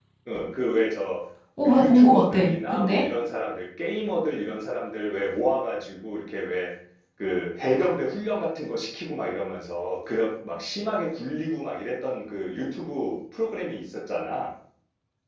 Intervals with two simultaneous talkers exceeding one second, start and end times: 1.6-3.0

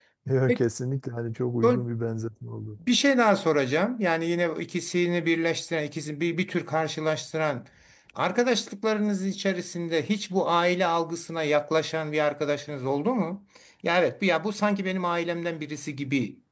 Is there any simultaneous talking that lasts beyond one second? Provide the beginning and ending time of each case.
none

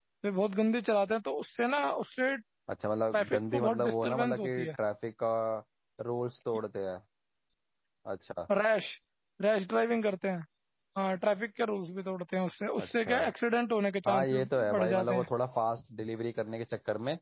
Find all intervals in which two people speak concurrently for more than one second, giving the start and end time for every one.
3.1-4.7, 14.1-15.3

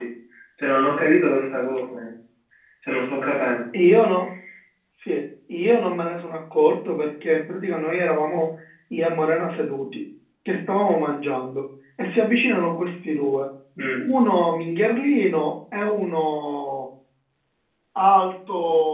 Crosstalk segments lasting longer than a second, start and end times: none

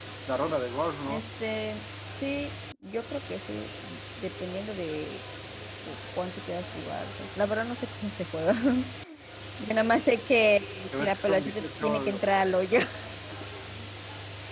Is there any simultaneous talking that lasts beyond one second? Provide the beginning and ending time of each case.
11.0-12.2

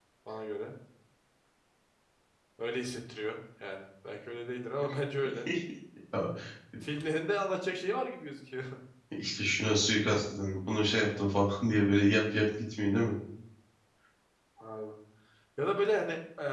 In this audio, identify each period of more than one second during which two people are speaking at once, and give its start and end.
none

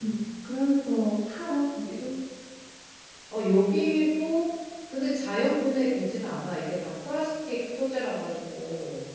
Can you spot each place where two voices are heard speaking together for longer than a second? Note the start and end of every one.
none

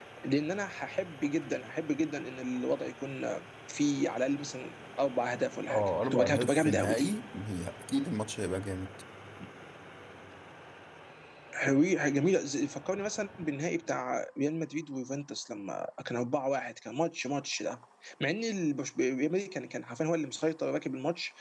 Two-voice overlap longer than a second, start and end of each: 5.7-7.1

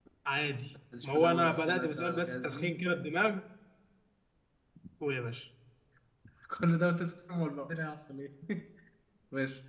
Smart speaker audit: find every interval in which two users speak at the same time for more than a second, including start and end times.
1.0-2.8

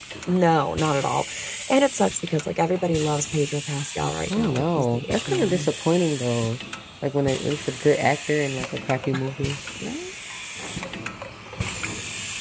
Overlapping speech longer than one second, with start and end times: 4.4-5.7

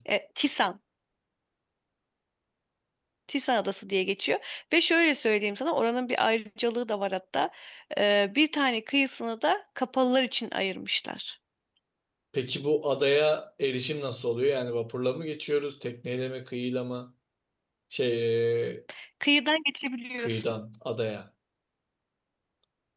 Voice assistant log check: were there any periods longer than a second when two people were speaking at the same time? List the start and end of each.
none

